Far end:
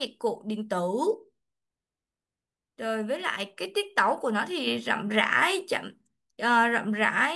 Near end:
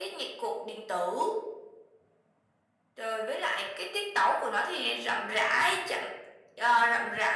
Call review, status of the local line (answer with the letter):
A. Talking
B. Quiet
B